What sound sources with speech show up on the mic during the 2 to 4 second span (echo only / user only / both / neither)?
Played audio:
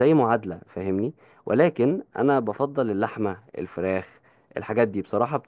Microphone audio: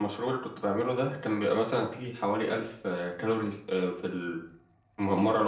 user only